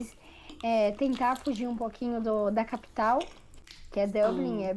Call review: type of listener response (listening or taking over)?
listening